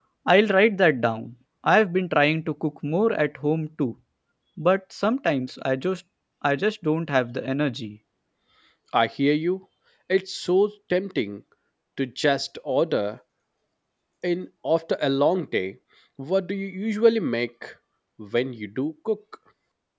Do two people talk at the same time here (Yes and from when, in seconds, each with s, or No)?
No